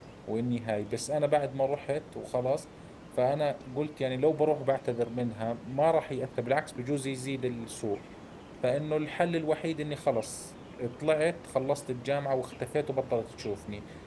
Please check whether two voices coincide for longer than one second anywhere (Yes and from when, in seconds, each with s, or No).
No